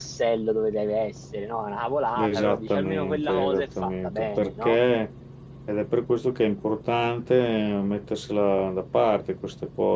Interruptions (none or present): present